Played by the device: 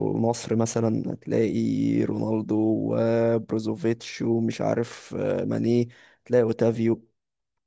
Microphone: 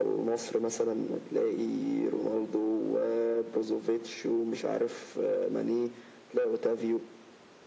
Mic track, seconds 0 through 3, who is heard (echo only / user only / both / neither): echo only